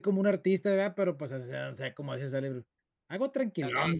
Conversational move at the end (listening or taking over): taking over